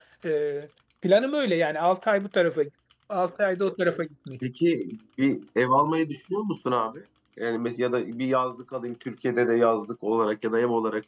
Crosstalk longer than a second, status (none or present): none